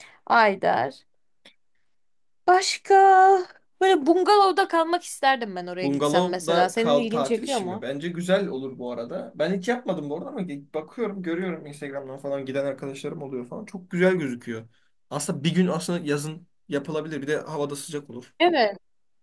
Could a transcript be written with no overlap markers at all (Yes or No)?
No